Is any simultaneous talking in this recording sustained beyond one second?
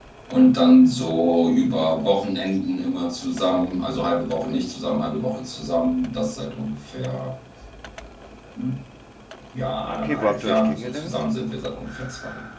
Yes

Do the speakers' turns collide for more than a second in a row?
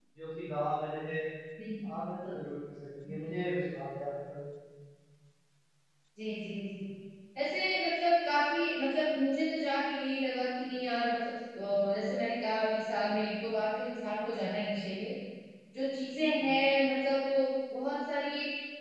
No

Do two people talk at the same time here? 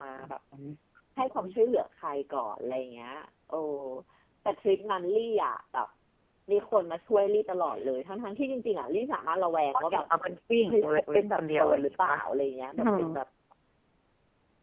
Yes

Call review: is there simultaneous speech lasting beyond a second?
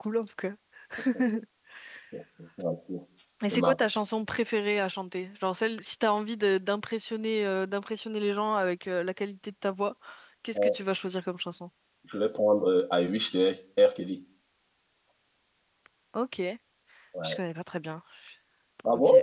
No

